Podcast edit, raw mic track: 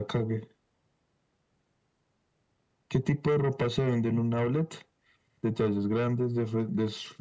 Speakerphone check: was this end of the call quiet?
Yes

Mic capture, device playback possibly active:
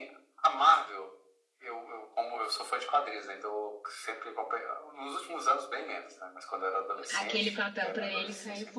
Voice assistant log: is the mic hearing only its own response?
No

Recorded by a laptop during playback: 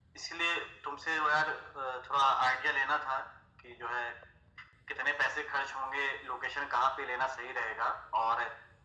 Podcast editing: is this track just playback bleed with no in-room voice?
Yes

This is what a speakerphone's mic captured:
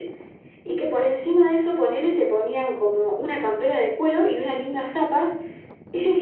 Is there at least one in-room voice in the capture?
No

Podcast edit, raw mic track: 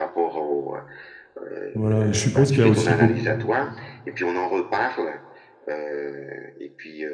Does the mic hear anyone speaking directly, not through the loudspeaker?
Yes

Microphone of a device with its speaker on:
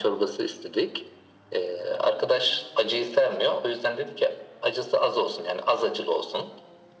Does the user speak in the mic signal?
No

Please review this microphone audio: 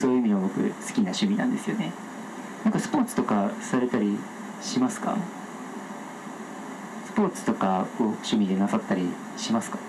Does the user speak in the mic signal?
No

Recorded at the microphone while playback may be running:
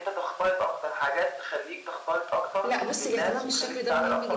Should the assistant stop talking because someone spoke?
Yes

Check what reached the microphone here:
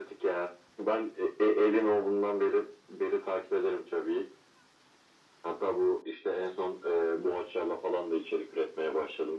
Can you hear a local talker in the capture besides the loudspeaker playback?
No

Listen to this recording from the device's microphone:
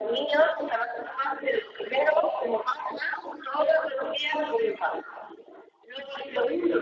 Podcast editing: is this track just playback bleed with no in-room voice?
Yes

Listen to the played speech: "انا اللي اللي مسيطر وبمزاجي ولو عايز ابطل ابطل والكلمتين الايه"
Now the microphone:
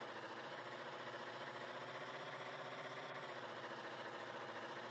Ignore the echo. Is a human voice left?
No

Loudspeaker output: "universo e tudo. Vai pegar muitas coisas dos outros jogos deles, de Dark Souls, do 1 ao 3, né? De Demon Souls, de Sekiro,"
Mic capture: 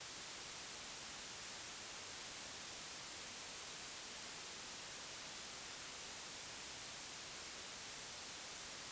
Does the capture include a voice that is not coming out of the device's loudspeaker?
No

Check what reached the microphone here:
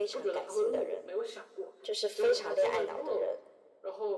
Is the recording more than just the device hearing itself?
No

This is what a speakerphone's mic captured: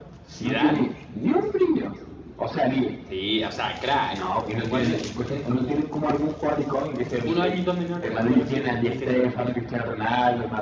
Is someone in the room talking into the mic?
Yes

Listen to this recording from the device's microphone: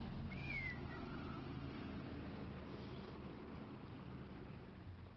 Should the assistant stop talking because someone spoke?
No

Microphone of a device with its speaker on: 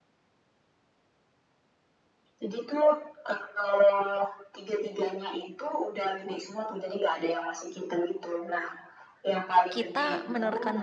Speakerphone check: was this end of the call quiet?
No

